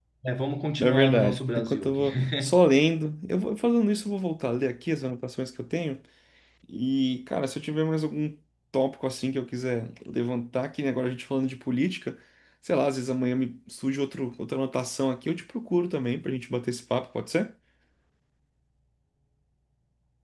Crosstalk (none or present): present